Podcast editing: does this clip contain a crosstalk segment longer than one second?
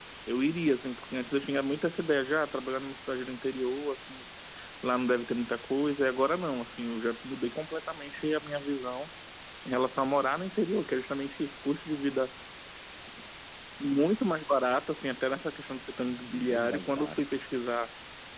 Yes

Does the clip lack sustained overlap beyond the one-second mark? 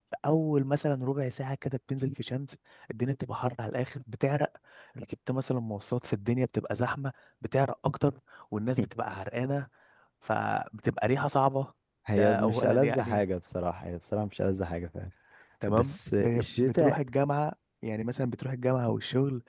No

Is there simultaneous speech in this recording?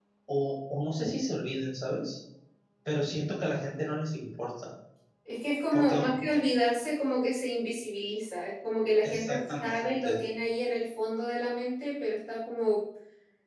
Yes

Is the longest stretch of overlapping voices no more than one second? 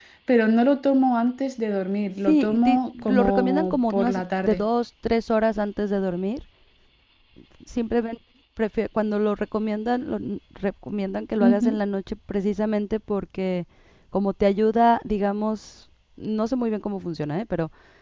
No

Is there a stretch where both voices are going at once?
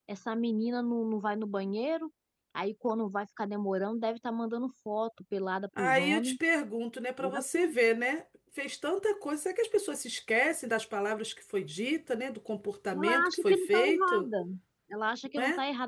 Yes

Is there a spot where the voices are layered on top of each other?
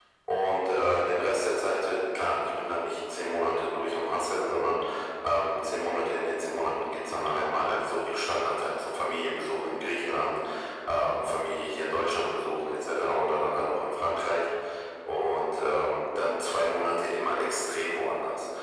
No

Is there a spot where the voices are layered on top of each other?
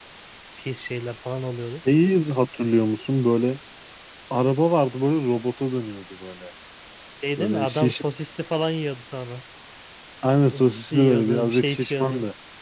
Yes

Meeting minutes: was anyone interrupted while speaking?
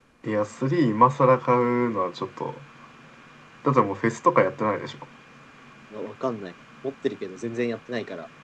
No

